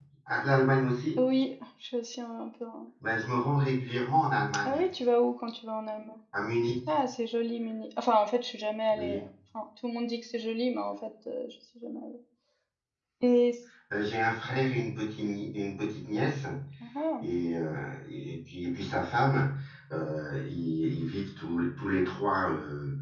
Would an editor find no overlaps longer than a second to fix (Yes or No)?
Yes